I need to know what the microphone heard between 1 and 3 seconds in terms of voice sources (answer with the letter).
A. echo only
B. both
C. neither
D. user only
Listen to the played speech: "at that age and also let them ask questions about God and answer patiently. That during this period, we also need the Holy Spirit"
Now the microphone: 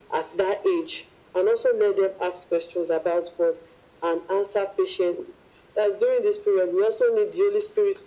A